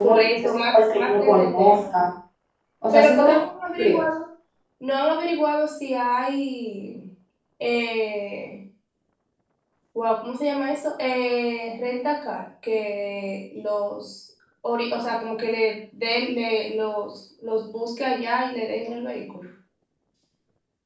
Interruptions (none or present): present